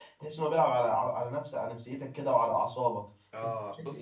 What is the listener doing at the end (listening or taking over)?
taking over